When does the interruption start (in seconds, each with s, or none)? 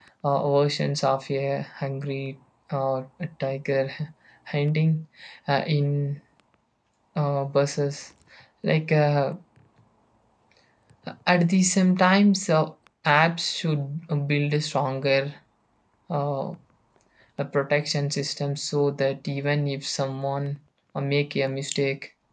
none